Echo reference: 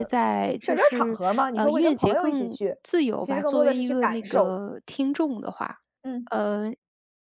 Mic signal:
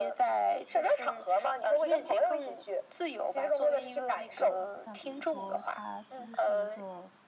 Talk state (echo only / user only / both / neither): both